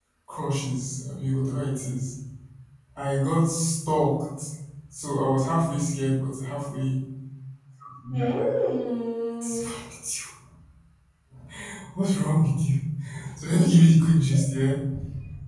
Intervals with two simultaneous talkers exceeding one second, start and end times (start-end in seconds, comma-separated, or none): none